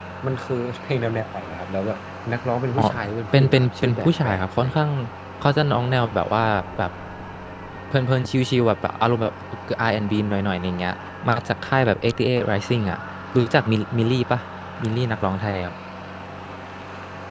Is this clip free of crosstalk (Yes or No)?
No